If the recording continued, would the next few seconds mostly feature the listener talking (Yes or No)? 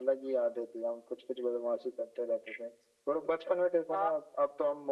No